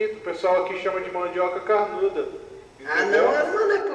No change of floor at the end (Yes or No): No